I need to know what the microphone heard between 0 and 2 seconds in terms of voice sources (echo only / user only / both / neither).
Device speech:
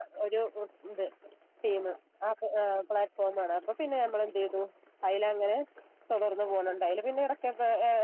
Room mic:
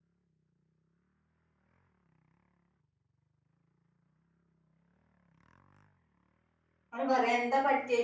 neither